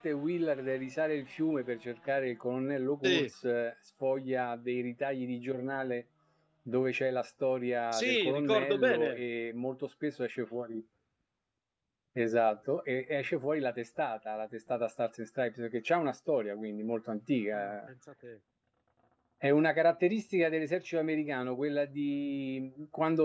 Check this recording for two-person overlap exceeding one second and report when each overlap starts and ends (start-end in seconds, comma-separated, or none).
7.9-9.2